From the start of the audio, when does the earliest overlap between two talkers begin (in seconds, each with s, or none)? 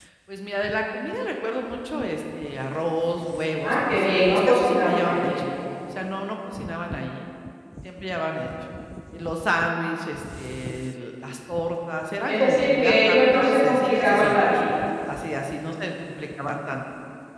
3.6 s